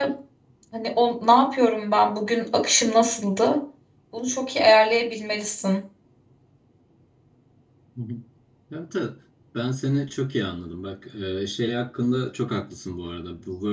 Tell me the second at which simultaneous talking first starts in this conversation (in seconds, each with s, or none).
none